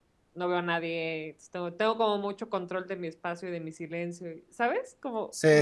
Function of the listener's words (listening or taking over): taking over